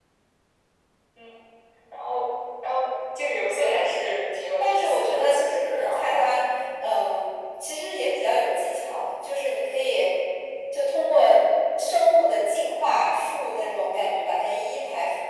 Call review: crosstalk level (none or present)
present